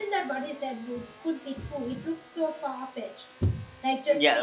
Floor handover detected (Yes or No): Yes